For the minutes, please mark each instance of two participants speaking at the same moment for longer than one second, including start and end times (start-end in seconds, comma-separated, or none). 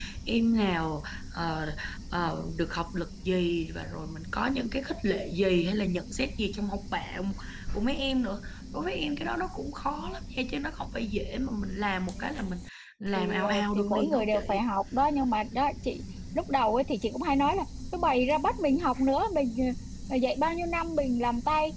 13.1-14.6